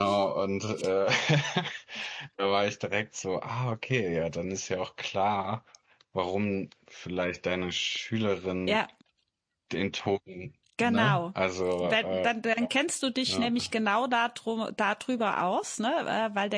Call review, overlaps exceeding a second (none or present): none